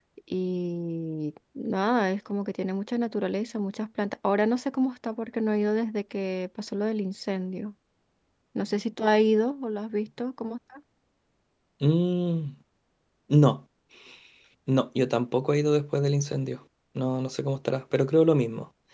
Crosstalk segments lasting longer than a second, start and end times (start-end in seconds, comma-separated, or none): none